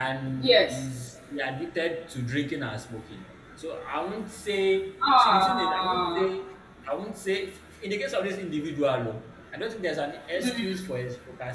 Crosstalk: present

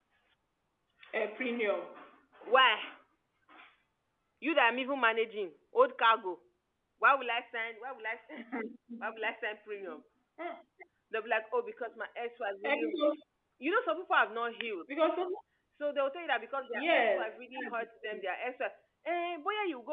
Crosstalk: present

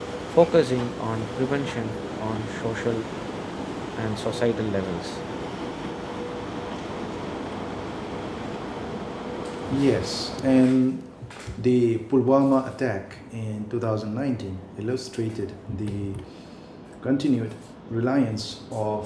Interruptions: none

